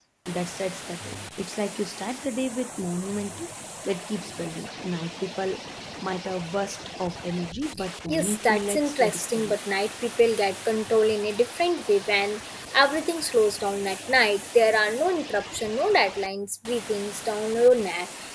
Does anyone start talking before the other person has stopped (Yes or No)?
Yes